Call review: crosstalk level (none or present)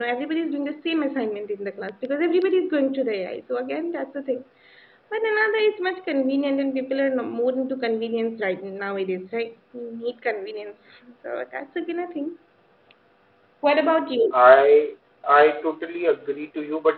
none